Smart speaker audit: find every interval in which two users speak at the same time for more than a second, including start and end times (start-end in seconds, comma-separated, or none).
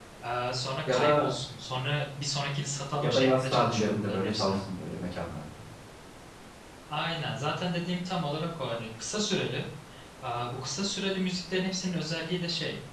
3.0-4.5